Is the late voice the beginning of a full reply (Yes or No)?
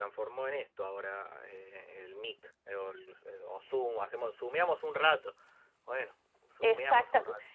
Yes